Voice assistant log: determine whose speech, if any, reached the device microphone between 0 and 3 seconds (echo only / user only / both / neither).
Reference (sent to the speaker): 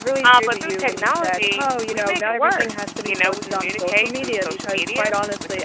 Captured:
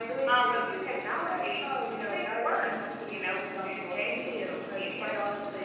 echo only